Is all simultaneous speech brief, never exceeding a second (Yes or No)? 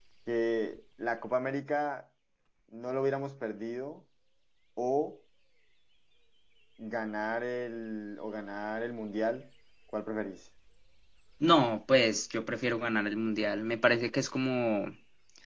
Yes